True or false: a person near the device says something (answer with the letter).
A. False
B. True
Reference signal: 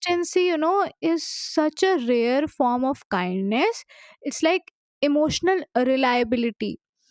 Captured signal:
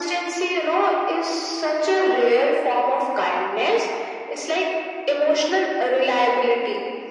A